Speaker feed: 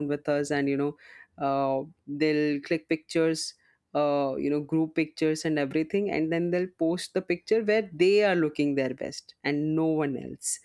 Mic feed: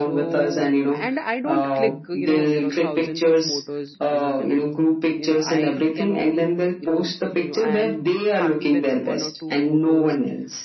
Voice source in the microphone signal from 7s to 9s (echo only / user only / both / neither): both